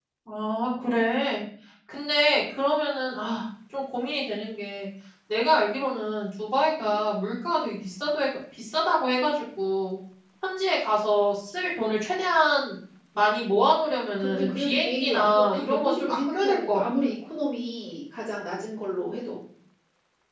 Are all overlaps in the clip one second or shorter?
No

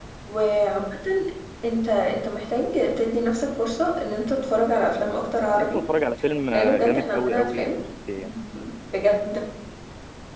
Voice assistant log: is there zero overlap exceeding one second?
No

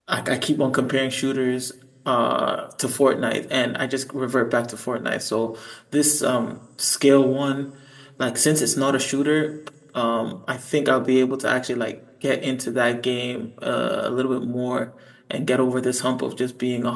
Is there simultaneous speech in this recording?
No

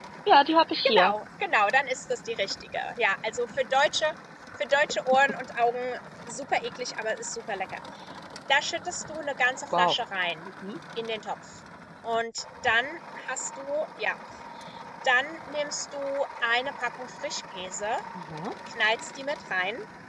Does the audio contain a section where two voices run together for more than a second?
No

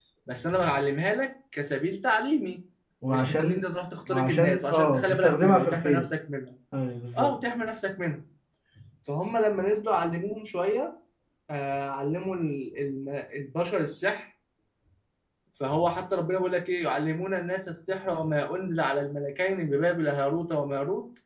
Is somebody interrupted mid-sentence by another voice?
Yes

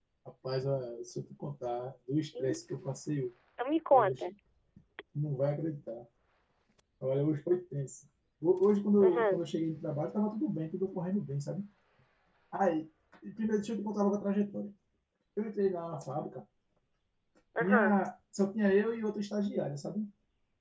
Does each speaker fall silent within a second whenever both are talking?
Yes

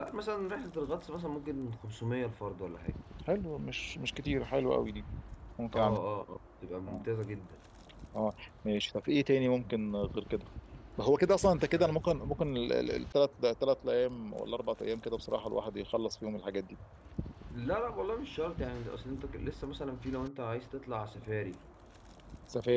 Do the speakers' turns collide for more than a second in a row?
No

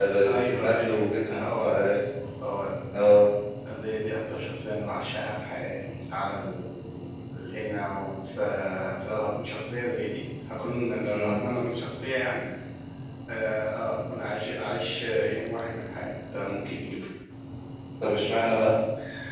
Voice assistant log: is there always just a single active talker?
No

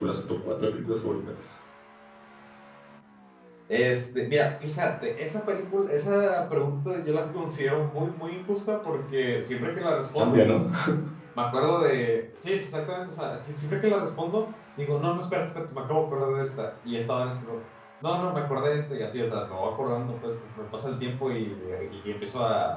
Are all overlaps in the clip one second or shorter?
Yes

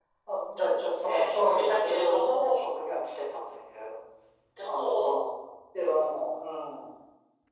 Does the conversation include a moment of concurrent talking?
Yes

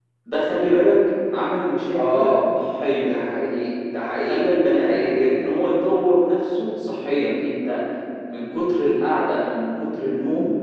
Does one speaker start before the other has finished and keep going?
Yes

